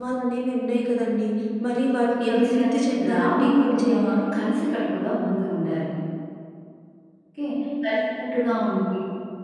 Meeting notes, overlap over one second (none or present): present